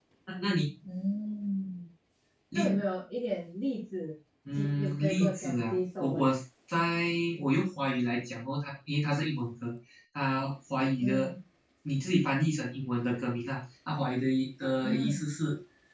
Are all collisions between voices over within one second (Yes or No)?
No